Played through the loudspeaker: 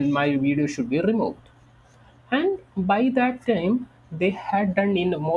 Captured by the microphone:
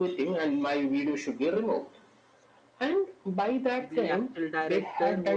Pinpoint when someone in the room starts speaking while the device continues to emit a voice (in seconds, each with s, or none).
3.8 s